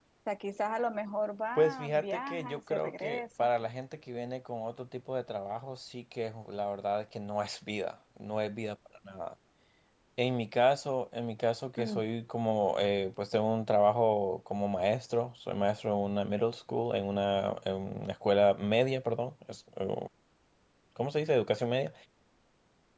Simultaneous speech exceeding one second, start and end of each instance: 1.6-3.5

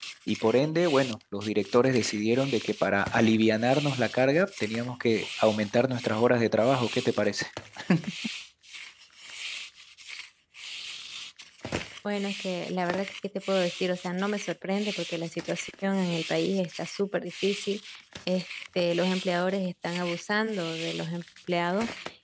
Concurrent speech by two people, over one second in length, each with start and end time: none

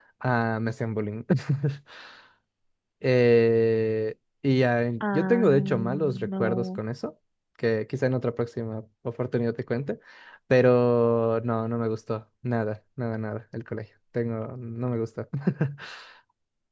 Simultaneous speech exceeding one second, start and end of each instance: 5.0-6.8

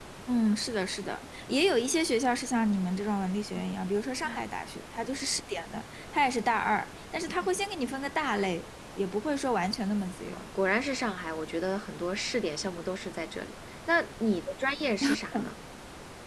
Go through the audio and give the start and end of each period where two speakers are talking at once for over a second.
none

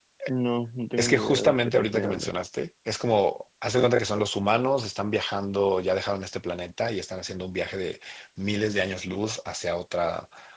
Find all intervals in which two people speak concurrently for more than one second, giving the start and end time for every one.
1.0-2.3

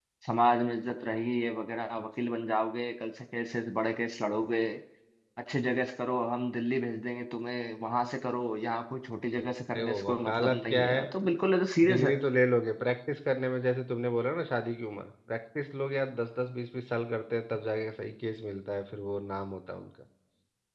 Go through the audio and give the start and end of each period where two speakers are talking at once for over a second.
9.7-11.0

